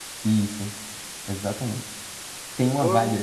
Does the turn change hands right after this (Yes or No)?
No